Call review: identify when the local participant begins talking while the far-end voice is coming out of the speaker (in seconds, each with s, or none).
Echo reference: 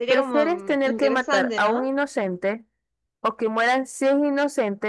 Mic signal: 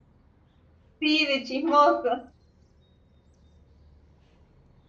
1.0 s